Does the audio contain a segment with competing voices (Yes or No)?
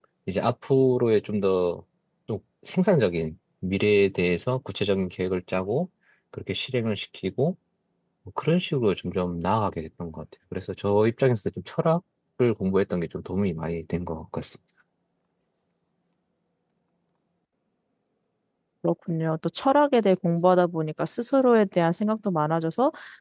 No